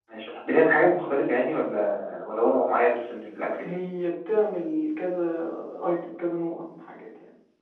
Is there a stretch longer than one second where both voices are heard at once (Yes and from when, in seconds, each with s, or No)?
No